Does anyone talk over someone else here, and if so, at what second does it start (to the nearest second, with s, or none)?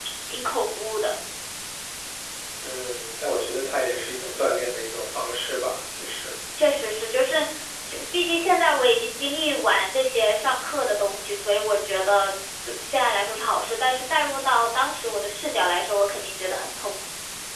none